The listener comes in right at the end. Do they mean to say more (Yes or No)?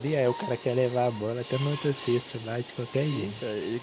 Yes